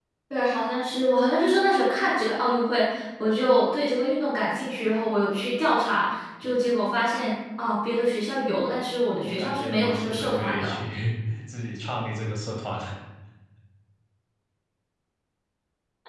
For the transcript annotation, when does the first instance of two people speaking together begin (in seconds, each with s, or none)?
9.2 s